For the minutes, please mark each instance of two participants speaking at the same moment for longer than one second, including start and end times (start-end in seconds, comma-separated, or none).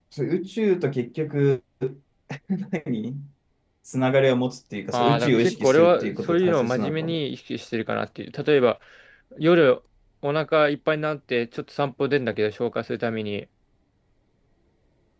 4.9-7.2